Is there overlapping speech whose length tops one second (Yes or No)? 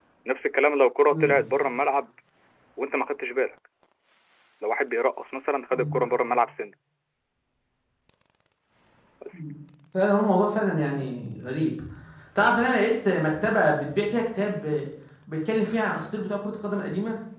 No